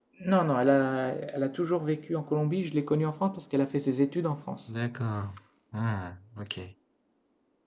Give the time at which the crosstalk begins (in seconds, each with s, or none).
none